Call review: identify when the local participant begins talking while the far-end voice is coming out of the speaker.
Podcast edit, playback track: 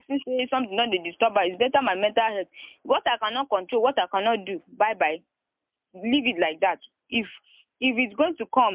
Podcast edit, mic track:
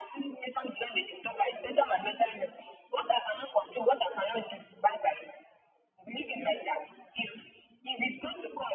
none

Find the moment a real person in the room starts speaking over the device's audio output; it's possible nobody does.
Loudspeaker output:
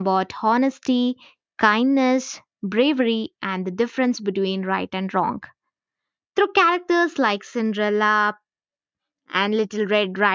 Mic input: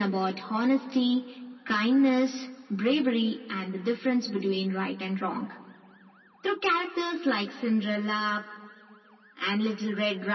none

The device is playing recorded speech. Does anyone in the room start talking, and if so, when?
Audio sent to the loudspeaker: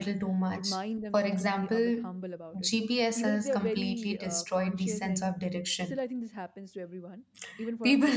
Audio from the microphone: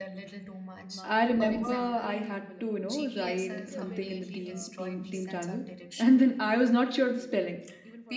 1.0 s

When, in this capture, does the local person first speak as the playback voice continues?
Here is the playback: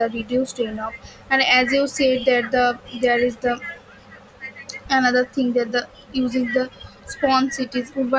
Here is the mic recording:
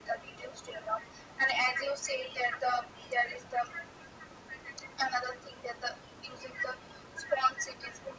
none

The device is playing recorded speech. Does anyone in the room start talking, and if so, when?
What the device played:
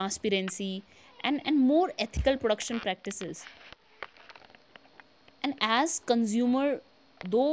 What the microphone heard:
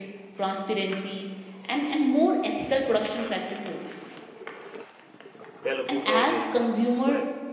5.6 s

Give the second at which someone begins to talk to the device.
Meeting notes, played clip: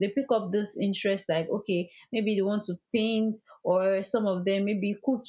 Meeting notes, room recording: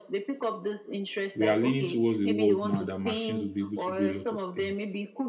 1.3 s

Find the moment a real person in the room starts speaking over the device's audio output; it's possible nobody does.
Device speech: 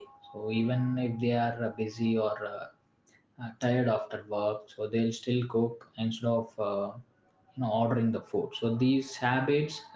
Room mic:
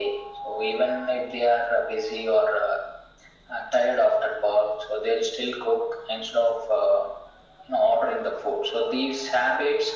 none

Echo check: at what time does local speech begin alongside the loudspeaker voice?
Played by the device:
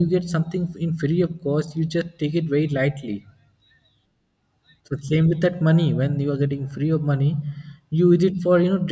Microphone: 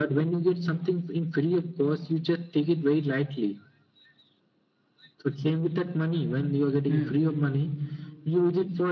6.8 s

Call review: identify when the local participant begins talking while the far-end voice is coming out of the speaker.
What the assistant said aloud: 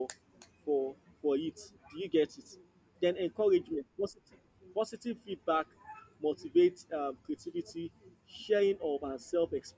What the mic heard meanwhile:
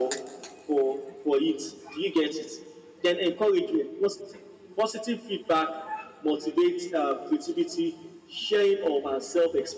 none

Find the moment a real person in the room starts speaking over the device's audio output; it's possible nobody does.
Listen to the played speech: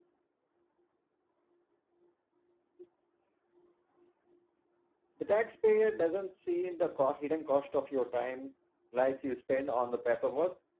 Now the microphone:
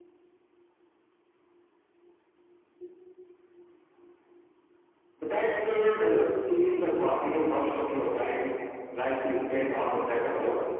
none

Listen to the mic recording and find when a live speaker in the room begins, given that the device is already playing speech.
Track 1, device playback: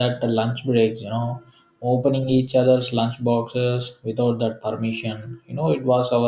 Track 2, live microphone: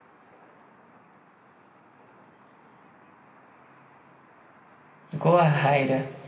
5.2 s

